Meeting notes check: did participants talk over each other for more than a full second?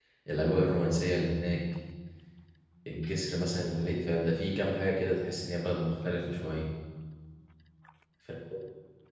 No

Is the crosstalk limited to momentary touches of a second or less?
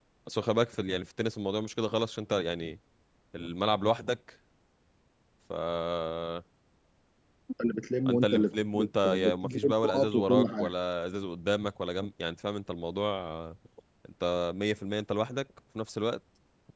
No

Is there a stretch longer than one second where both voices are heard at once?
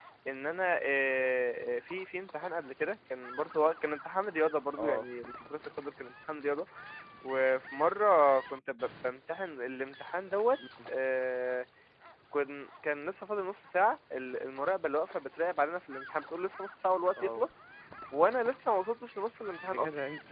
No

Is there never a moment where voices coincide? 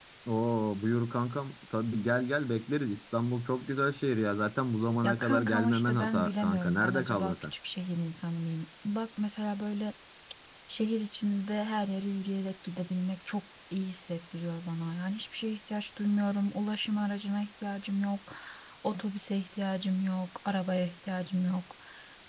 No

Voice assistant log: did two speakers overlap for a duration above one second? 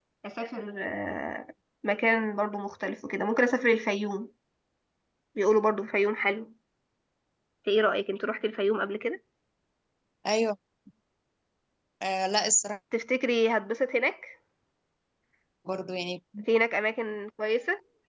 No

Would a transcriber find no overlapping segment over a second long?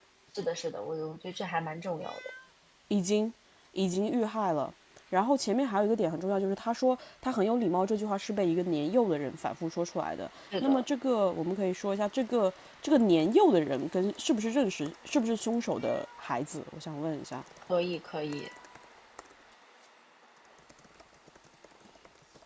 Yes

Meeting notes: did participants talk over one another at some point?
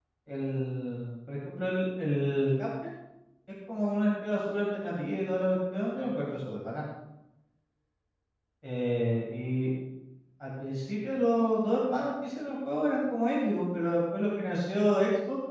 No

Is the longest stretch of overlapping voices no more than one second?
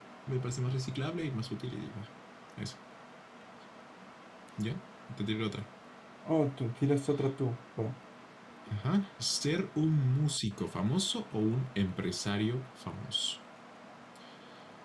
Yes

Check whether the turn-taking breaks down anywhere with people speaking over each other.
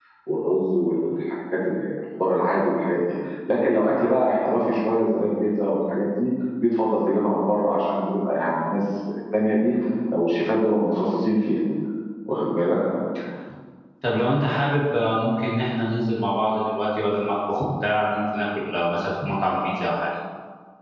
No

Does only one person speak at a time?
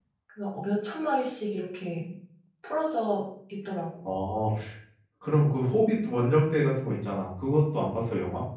Yes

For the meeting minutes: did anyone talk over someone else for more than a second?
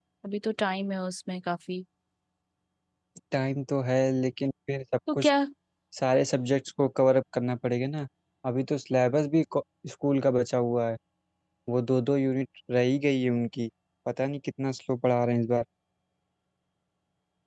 No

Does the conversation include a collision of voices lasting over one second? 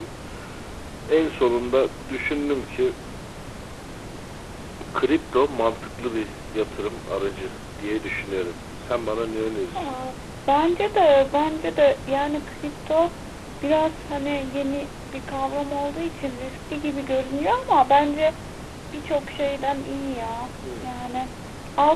No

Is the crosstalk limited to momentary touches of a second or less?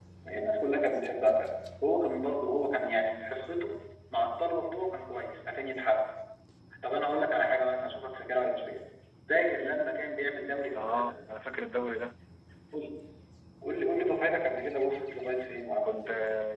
Yes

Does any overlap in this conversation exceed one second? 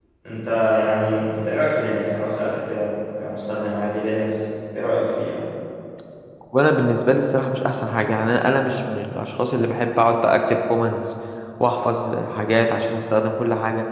No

